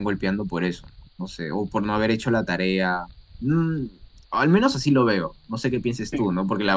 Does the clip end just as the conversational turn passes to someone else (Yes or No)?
No